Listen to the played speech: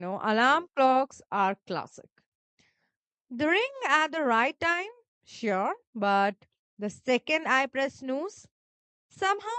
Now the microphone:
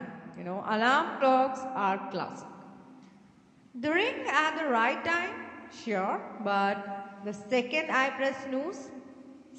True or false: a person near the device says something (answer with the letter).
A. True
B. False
B